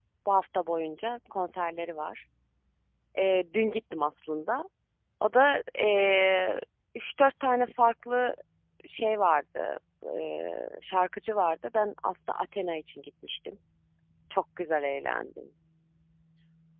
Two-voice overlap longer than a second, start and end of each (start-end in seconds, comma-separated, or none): none